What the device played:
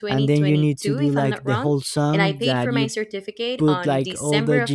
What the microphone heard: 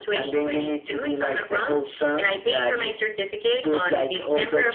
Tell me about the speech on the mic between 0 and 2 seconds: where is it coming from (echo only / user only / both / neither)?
echo only